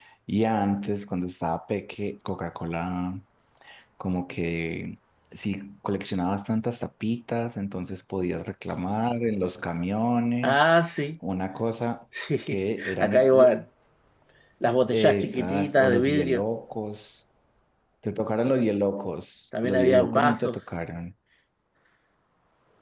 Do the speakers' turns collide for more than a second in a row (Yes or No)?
Yes